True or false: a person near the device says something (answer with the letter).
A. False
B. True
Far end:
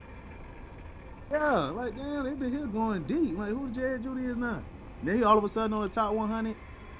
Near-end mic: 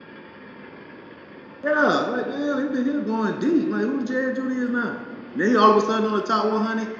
A